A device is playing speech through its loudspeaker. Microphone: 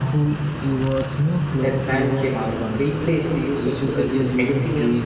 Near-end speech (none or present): present